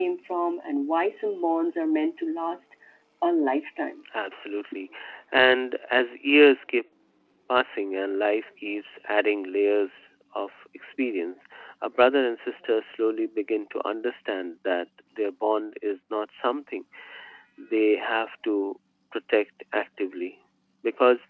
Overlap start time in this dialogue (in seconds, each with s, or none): none